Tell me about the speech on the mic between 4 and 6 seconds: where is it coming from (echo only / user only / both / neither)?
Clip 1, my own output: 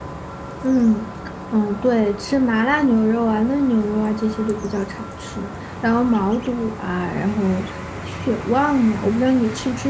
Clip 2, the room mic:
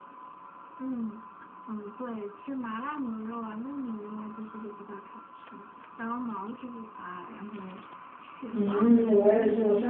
echo only